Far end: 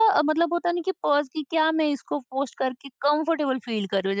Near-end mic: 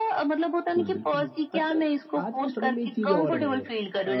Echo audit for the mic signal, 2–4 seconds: both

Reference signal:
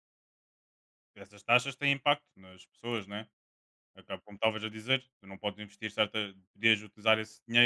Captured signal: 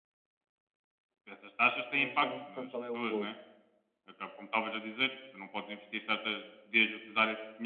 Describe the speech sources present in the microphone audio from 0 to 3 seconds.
both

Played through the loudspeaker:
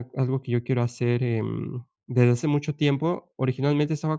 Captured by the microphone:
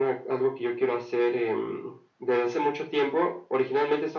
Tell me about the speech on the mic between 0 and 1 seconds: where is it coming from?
echo only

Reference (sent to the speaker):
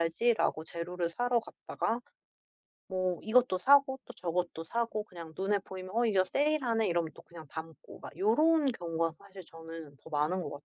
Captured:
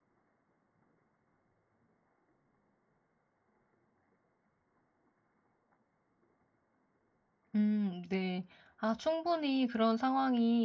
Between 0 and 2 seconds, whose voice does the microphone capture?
neither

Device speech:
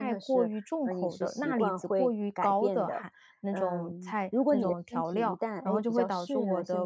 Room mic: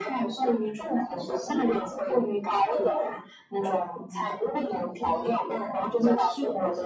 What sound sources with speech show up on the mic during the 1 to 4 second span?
echo only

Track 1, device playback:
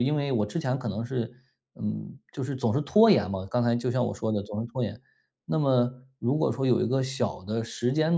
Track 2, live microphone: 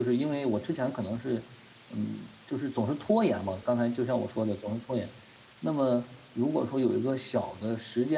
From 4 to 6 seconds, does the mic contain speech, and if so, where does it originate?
echo only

